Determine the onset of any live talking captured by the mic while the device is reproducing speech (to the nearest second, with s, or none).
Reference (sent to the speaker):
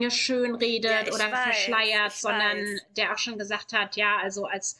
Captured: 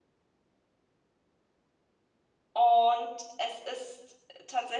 3 s